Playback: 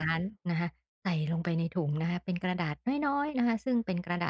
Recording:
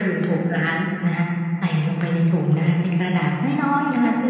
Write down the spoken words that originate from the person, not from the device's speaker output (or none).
none